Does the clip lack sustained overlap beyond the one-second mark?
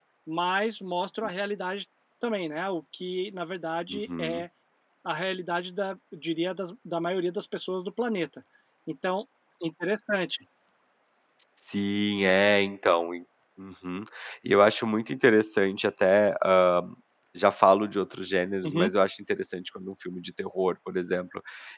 Yes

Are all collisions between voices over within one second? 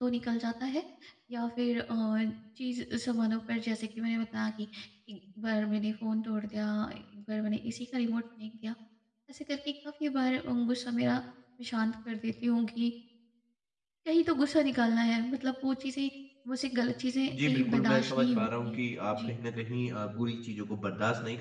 No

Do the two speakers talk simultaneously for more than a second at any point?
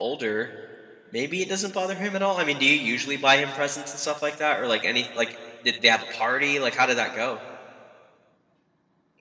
No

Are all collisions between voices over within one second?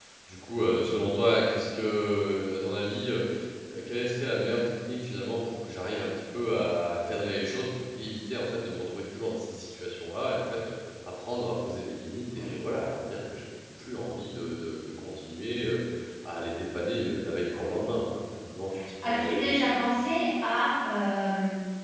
Yes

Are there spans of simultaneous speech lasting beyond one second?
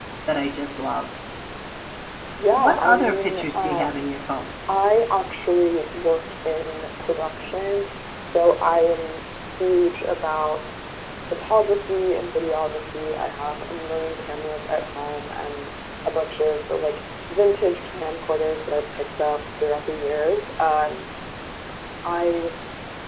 Yes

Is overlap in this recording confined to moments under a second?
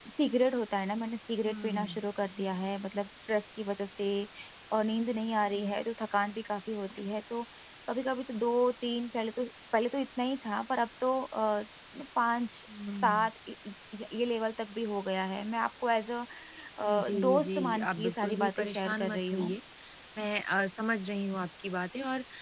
No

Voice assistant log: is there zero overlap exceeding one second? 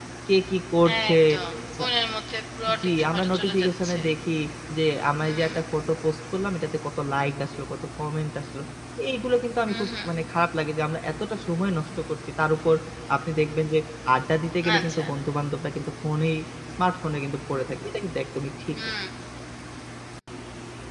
No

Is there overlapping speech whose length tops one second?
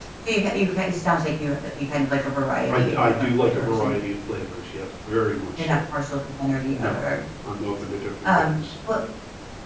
Yes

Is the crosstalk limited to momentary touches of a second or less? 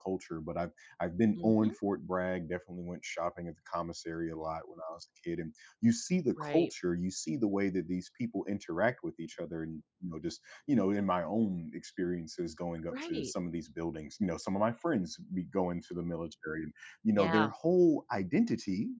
Yes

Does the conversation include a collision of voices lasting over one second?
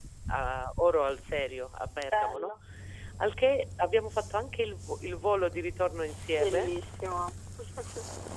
No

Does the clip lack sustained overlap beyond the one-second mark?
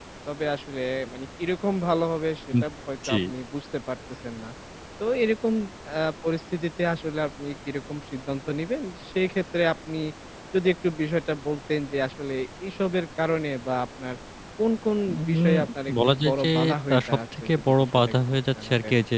No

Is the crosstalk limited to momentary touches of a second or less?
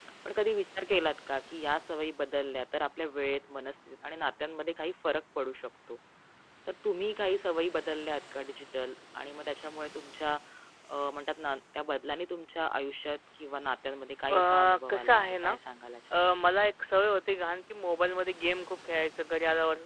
No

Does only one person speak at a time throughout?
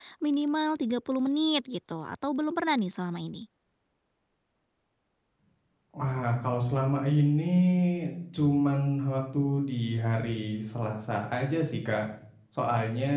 Yes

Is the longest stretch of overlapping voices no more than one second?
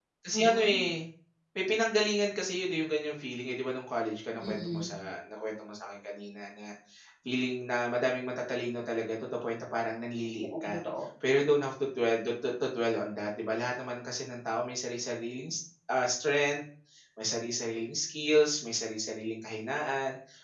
Yes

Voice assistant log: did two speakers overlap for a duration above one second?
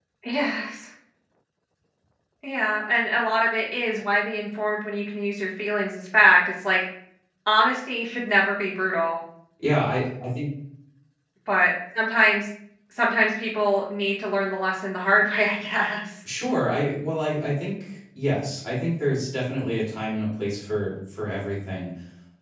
No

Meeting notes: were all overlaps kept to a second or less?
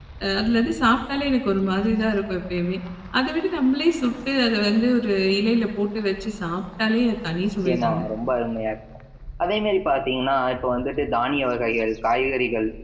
Yes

